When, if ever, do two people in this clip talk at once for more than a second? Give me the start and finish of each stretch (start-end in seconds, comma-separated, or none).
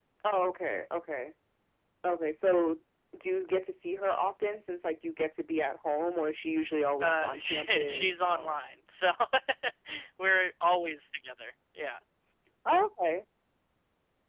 7.0-8.6